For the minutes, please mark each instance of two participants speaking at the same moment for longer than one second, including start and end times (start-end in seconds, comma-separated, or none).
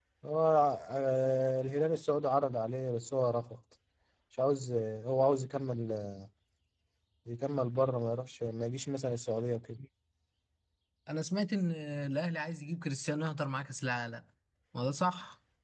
none